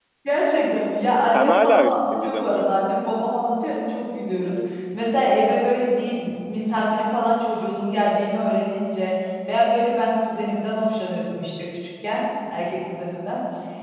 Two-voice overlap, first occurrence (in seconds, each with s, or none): 1.3 s